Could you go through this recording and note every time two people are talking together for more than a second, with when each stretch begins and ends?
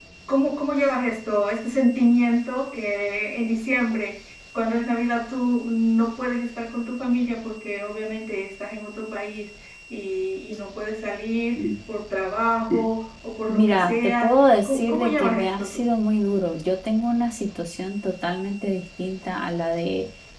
13.5-15.9

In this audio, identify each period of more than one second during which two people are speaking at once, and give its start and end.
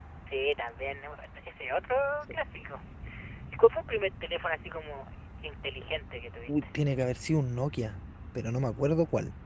none

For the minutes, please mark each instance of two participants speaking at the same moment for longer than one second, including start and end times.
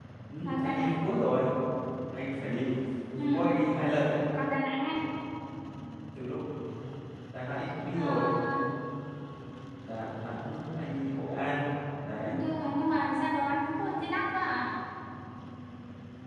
none

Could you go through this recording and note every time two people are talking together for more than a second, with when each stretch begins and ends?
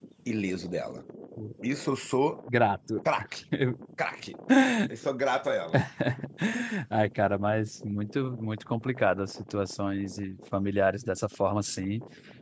none

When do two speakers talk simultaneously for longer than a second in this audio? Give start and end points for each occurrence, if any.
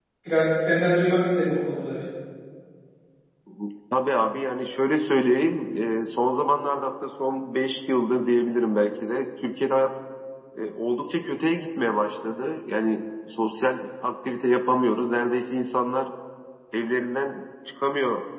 none

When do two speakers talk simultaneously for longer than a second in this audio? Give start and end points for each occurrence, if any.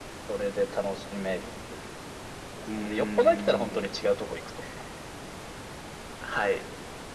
2.8-4.1

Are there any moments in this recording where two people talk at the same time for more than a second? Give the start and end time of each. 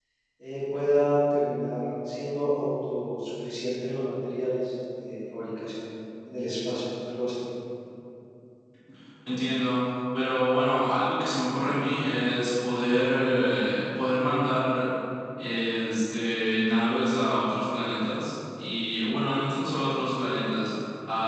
none

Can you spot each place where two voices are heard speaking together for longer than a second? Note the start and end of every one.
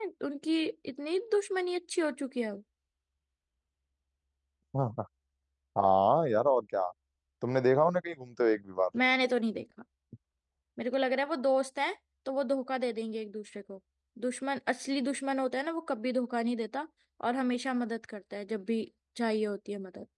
none

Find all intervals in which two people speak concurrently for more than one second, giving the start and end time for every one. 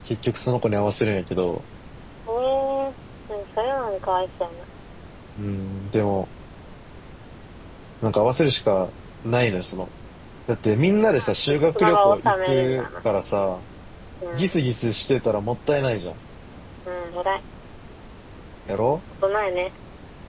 11.2-12.9

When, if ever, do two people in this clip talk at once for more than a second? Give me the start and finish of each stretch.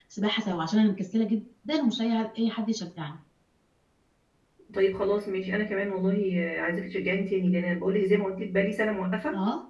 none

